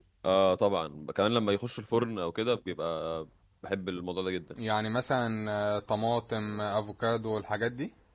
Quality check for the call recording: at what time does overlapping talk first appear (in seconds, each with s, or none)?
none